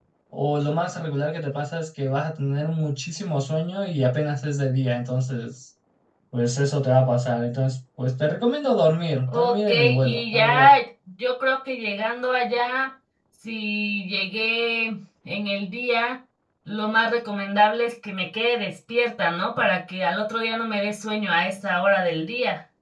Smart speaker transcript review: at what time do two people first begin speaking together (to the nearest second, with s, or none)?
9 s